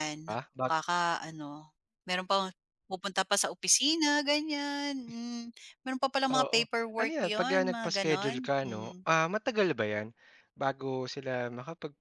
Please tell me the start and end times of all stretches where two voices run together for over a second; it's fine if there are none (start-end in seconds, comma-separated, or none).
7.0-8.9